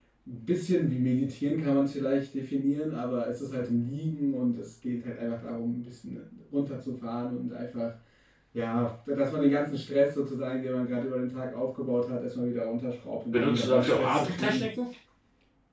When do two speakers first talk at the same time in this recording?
13 s

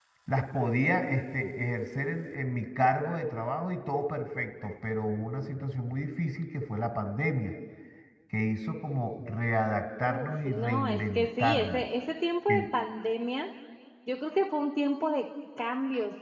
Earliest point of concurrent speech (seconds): 10 s

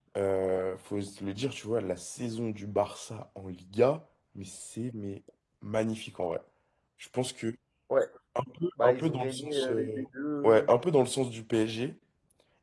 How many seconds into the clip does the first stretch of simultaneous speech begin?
9 s

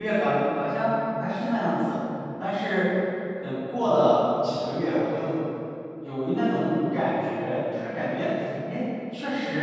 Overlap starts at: none

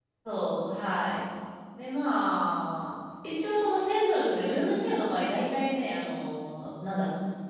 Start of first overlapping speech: none

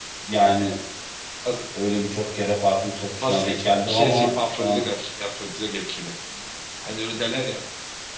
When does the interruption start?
3 s

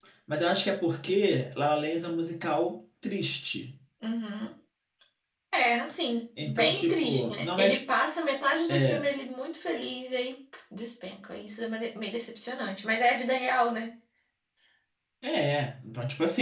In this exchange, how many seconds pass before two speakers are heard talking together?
6 s

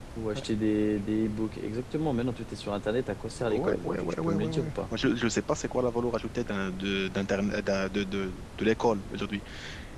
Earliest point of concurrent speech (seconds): 3 s

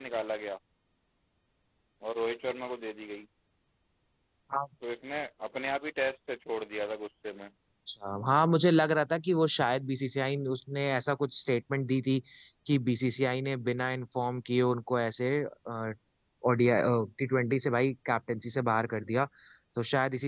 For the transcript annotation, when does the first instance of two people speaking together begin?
none

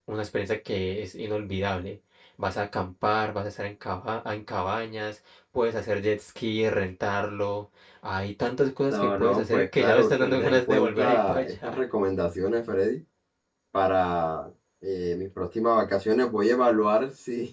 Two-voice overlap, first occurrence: 9 s

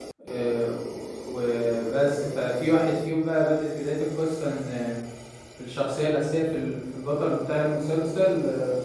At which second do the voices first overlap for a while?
none

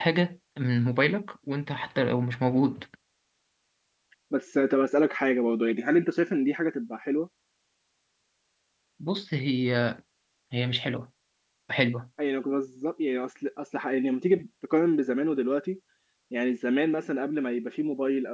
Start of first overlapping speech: none

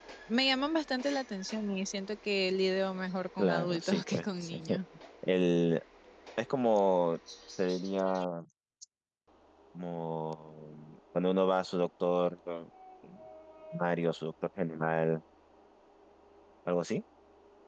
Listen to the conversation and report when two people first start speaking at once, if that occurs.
3 s

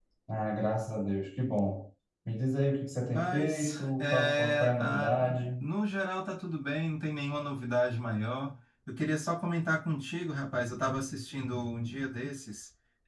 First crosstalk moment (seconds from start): 3 s

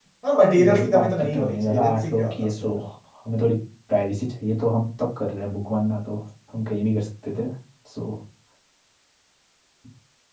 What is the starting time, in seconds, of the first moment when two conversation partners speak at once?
1 s

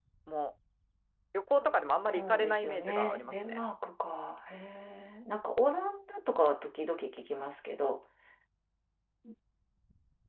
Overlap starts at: 2 s

